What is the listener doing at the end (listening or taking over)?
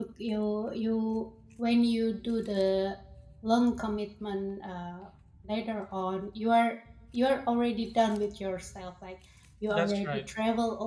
listening